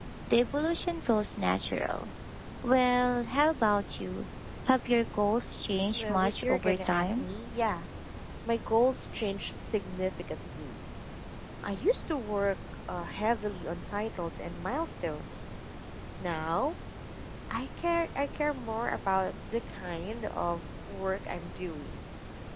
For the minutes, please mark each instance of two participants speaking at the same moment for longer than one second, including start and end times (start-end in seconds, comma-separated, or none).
6.0-7.2